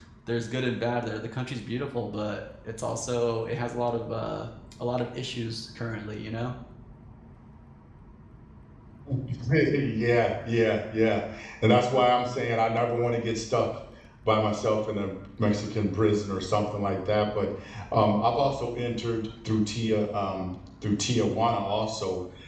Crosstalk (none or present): none